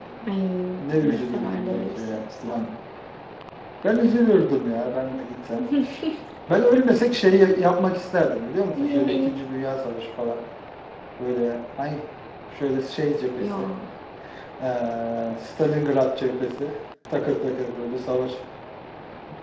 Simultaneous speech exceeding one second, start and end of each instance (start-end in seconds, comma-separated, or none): 1.1-2.6